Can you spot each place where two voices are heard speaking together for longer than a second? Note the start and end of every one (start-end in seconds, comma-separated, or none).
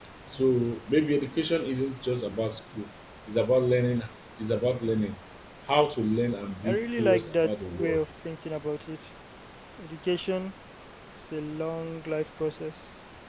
6.6-8.0